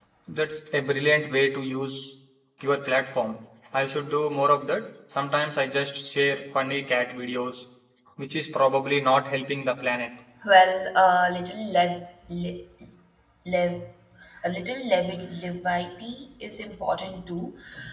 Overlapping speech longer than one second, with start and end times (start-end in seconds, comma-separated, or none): none